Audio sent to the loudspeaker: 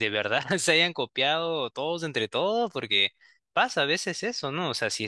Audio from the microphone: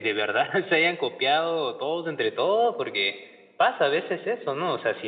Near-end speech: none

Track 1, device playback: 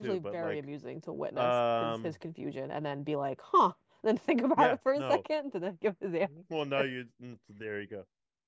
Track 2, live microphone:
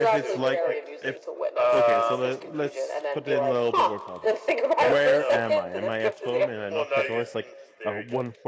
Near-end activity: present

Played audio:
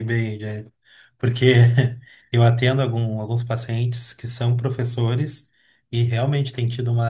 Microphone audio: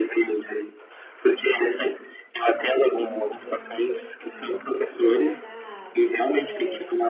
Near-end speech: present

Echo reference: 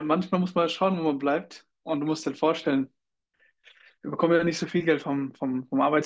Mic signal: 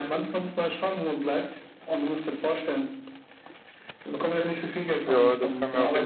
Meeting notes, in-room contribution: present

